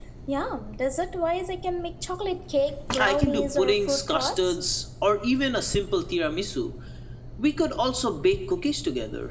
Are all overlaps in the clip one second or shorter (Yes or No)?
No